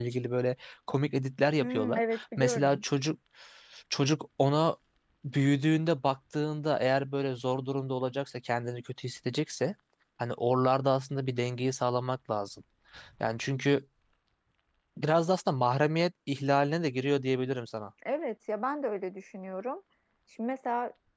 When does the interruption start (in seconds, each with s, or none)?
1.6 s